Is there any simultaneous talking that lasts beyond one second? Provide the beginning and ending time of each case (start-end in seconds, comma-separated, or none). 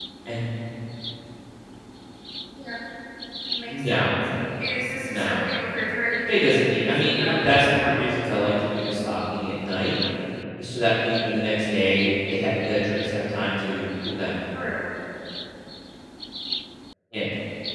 6.3-8.0